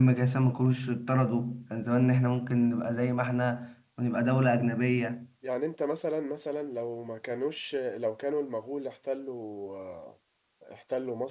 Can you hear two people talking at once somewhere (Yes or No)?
No